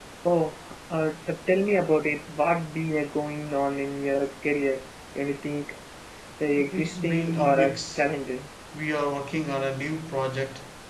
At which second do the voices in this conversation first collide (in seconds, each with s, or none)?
6.6 s